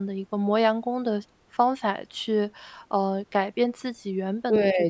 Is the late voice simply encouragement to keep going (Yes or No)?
No